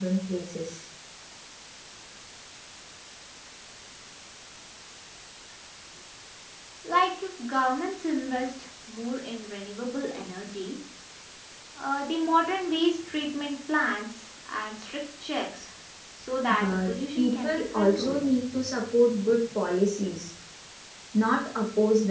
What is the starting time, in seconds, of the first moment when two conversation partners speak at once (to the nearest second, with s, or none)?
17 s